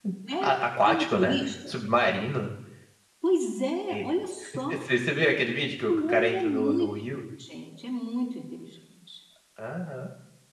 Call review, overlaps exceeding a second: present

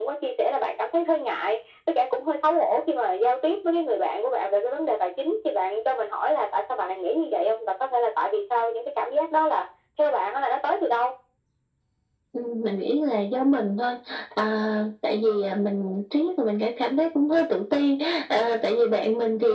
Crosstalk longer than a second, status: none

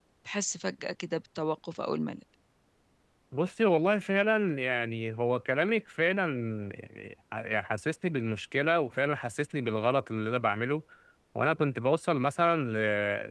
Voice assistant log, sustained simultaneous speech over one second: none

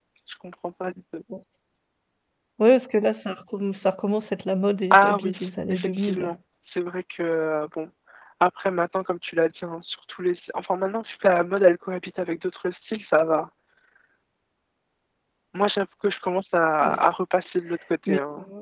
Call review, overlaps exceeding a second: present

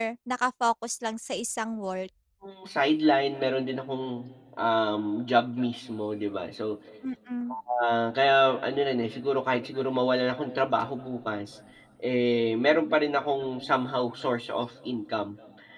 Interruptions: none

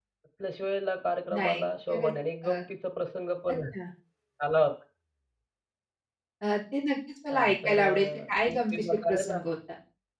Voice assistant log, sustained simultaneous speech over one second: present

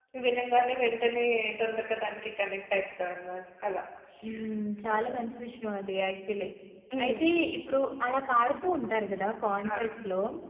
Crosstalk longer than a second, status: none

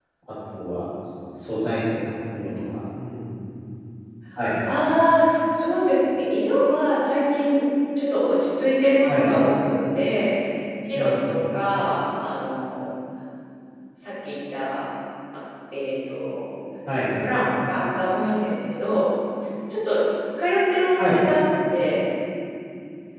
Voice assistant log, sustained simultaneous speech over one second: none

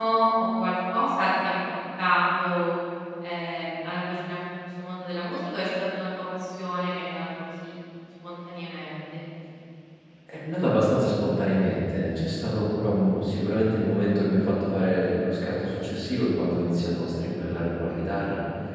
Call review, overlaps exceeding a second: none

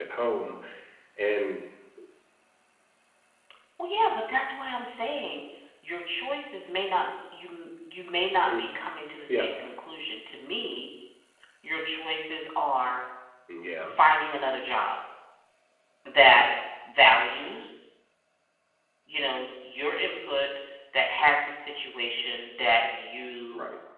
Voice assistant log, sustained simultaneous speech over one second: none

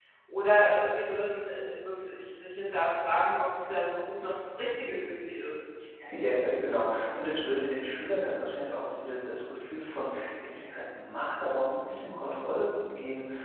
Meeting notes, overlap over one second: none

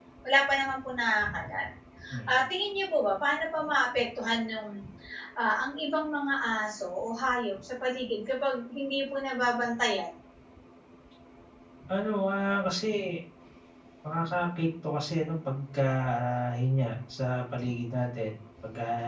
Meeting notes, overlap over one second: none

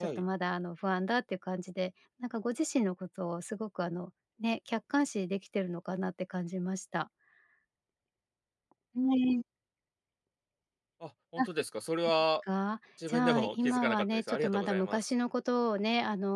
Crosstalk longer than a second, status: present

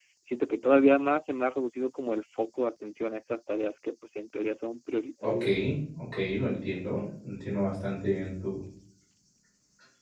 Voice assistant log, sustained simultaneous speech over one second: none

